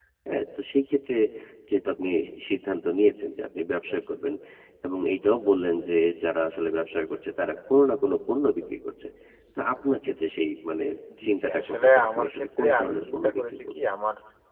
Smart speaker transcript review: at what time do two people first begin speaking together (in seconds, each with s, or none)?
11.2 s